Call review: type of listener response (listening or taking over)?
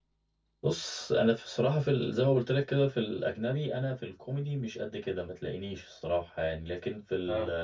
listening